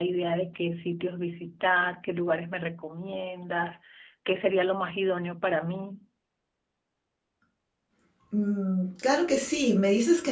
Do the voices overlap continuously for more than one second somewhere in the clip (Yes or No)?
No